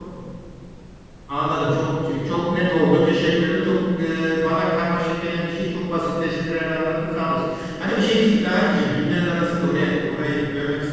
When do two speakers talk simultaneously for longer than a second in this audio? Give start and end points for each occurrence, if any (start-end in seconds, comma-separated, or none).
none